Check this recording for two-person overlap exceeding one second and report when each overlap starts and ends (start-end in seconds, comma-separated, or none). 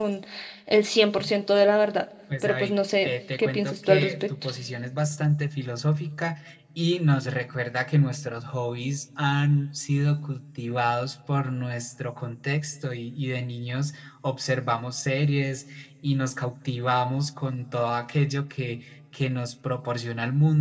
2.4-4.5